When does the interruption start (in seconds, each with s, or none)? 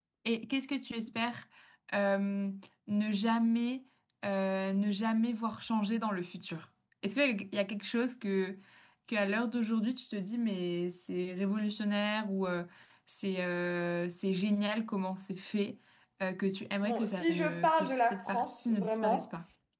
16.8 s